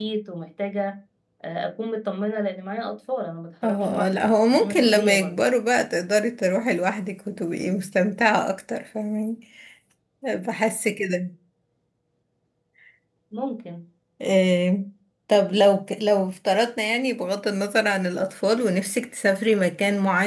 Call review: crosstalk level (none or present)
present